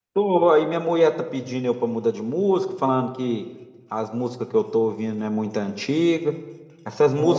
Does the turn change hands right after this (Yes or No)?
No